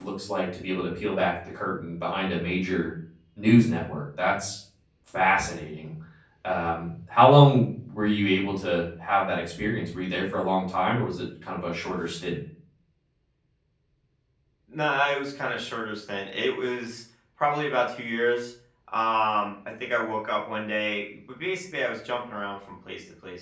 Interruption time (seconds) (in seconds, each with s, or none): none